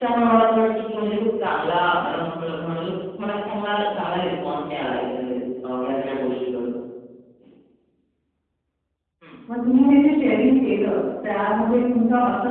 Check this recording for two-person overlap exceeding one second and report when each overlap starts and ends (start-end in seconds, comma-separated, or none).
none